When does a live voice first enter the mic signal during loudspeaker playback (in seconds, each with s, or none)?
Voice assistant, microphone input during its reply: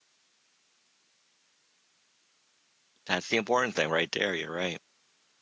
3.1 s